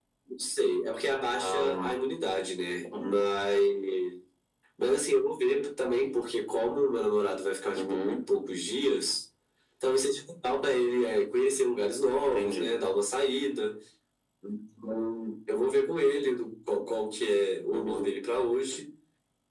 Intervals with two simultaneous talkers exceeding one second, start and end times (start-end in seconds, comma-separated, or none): none